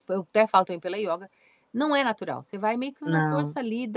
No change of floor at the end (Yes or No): Yes